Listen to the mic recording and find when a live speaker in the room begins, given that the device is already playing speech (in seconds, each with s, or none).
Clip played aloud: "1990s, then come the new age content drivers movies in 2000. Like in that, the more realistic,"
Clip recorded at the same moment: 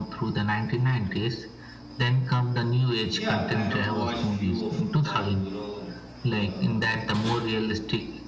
3.1 s